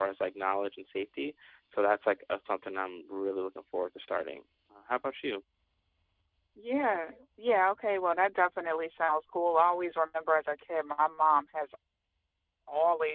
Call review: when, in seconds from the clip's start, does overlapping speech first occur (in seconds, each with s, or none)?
none